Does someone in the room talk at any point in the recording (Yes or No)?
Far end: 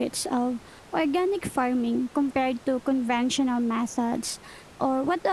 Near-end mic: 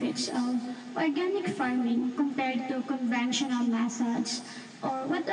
No